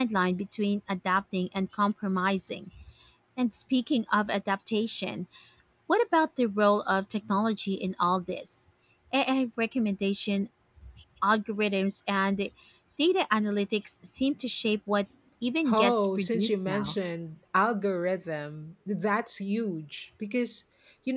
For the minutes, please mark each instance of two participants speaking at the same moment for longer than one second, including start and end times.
15.7-16.9

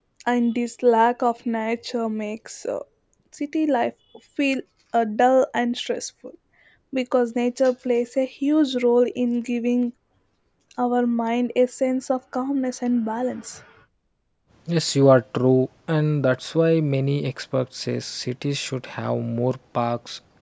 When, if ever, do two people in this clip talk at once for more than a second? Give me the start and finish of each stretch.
none

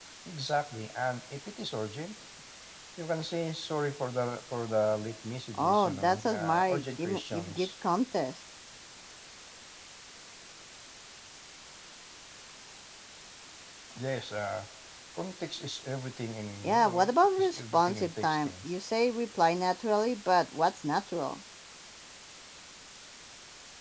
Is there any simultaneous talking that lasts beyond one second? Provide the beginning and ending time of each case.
5.6-7.7, 16.6-18.6

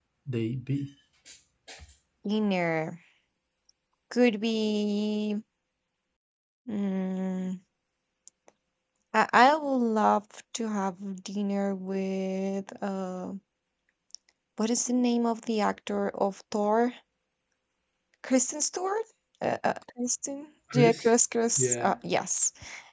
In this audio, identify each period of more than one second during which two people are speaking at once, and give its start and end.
none

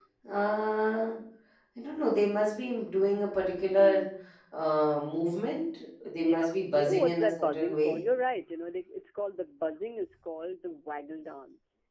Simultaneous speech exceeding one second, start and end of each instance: 6.2-8.0

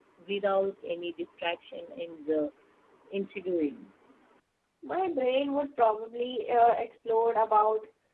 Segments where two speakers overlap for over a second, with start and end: none

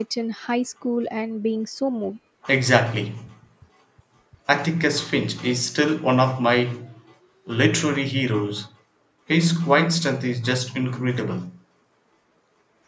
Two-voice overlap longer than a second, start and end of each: none

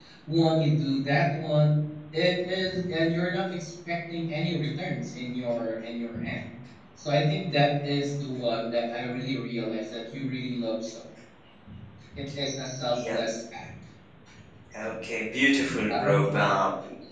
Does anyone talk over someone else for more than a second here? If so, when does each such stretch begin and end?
none

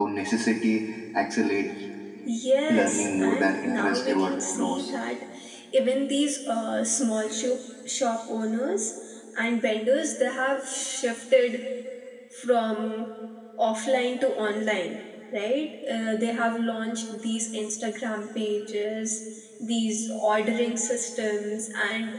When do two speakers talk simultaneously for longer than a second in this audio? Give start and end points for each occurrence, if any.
2.7-4.9

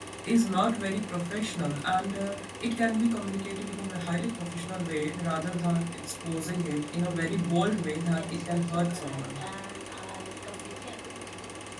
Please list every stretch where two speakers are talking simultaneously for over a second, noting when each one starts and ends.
8.1-9.4

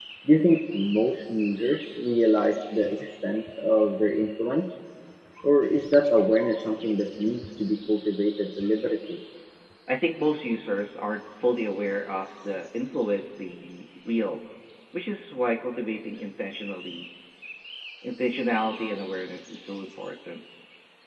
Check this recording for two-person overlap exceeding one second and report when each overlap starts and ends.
none

